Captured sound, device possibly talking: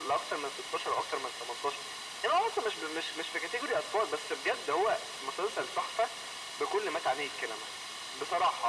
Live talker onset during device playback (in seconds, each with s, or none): none